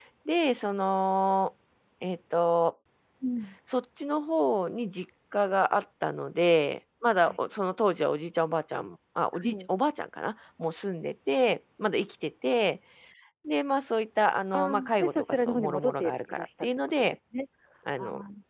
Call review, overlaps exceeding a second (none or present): present